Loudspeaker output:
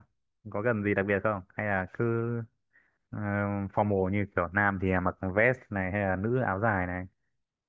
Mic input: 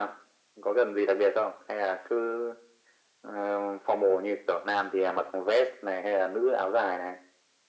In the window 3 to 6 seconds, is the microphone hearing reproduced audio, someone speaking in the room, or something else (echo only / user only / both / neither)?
echo only